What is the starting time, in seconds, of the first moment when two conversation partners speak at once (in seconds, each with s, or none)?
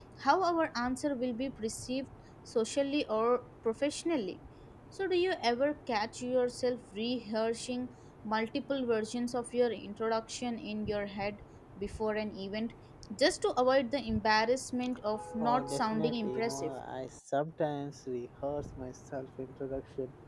15.4 s